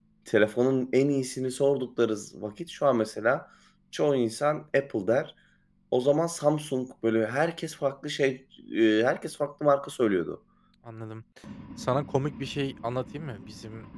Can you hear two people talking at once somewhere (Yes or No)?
No